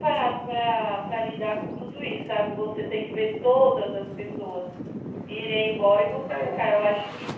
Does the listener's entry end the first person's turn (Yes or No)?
No